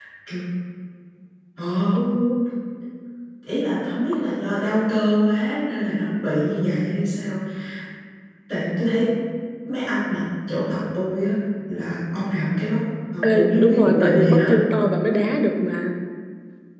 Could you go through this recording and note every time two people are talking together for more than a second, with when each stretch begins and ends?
13.2-14.5

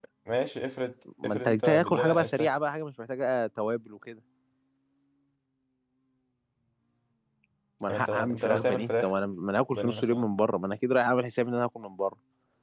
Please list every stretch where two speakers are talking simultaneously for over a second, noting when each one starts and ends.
1.2-2.6, 7.9-9.1

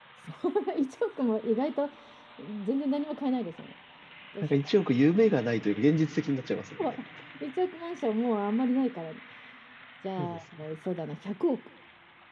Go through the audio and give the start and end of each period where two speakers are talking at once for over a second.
none

